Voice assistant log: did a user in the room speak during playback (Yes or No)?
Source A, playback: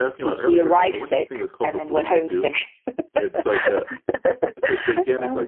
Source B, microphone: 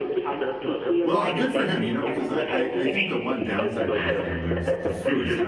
Yes